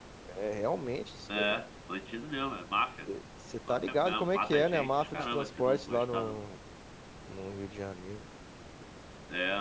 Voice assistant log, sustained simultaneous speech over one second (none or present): present